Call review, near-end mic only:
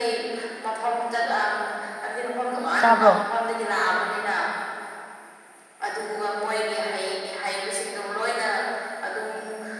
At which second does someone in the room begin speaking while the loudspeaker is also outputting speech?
2.8 s

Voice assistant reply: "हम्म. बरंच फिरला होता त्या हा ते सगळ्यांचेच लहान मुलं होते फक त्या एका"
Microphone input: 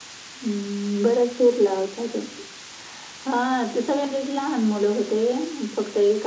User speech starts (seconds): none

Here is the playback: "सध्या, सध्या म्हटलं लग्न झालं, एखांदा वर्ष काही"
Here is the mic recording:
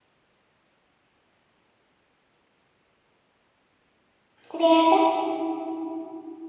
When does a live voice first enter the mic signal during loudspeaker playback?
4.5 s

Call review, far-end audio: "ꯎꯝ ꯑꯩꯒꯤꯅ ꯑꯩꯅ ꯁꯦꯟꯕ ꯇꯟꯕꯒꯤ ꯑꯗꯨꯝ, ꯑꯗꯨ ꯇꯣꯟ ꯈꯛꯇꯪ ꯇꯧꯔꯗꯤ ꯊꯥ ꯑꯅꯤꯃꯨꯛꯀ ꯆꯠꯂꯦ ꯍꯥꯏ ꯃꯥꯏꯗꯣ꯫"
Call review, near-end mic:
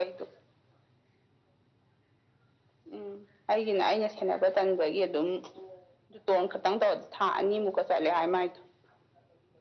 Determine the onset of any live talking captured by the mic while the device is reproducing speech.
none

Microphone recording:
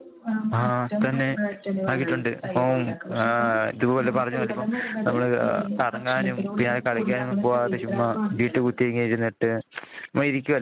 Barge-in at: 0.6 s

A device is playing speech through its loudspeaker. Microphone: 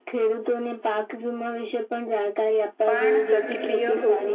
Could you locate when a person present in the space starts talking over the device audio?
2.9 s

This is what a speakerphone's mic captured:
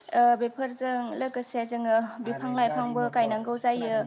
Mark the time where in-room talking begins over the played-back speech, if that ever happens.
2.3 s

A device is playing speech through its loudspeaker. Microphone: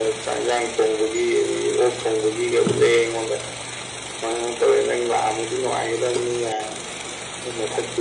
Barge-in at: none

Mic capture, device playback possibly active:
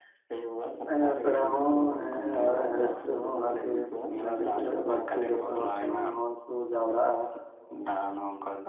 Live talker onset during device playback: 0.9 s

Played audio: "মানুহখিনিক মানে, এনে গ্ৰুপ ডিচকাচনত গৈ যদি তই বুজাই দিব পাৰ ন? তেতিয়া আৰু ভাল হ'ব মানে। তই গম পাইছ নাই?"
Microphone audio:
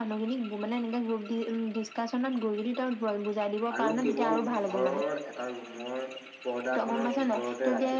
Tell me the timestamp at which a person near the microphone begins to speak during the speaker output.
3.8 s

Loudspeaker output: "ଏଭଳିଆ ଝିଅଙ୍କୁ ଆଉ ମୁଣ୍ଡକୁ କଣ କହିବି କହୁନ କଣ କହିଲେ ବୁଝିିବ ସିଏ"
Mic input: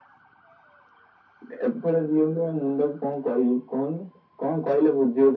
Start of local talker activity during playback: none

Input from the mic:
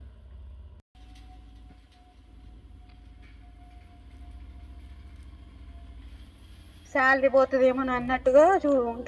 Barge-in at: 6.9 s

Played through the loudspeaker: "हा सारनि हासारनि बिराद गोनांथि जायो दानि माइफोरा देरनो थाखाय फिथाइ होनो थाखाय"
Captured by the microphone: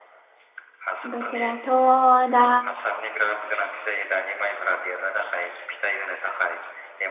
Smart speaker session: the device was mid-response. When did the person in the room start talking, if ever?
1.1 s

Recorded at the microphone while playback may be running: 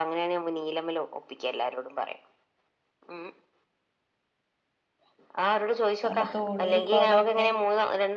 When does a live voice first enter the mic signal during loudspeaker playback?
6.1 s

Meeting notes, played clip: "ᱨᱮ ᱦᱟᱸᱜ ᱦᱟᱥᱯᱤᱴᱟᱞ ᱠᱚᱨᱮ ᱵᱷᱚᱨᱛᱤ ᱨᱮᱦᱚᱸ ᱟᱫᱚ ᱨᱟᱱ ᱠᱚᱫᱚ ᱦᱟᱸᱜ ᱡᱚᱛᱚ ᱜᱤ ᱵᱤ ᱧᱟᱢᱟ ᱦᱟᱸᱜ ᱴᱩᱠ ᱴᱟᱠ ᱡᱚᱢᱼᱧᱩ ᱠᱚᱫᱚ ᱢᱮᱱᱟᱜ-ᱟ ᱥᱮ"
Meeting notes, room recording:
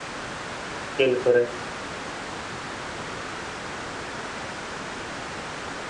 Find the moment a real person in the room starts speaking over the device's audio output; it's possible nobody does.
0.9 s

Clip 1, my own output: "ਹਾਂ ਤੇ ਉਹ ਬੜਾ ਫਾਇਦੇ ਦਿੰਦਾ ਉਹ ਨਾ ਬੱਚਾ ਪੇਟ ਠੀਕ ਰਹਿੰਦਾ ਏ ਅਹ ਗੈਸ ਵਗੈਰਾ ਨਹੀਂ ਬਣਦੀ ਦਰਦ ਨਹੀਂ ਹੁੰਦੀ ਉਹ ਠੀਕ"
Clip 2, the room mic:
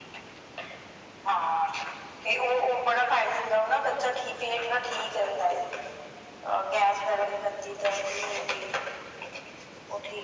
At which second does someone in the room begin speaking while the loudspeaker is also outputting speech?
none

